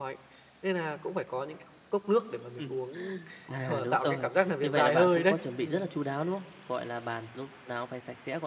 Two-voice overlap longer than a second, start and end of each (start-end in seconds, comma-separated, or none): 3.6-5.9